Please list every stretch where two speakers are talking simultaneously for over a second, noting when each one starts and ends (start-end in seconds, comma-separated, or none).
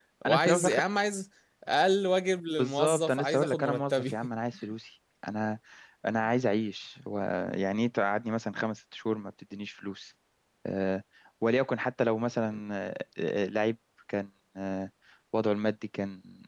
2.6-4.1